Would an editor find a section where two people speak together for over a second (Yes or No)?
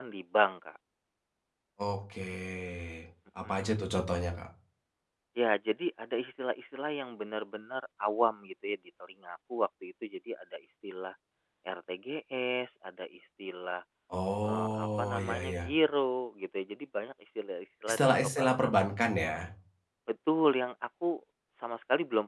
Yes